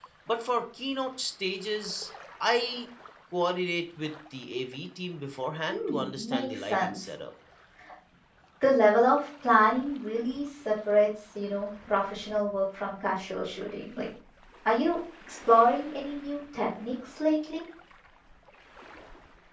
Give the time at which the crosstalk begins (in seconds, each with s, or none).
5.7 s